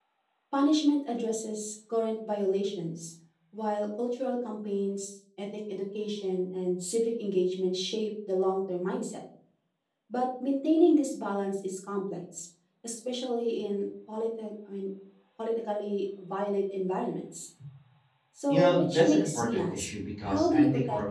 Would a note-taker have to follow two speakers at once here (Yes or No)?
Yes